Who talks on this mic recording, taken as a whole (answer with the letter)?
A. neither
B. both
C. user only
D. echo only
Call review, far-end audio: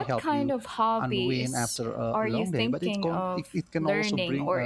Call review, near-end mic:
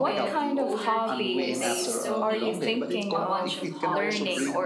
B